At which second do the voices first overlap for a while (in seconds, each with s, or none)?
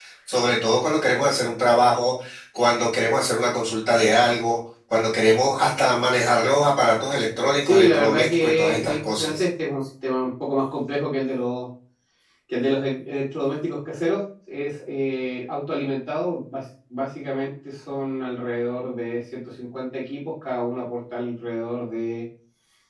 7.6 s